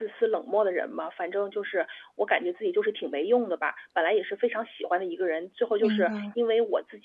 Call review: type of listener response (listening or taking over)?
listening